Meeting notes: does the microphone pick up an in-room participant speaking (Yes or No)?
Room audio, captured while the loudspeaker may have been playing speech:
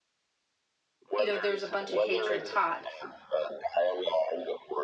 Yes